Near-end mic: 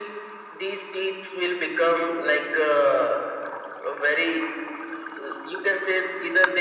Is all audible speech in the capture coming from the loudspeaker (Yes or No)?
Yes